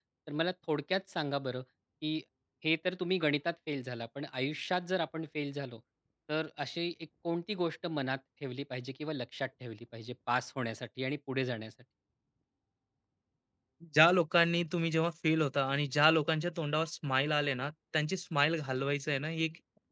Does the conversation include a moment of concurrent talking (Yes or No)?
No